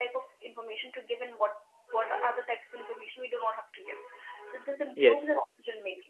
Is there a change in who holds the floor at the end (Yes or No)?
No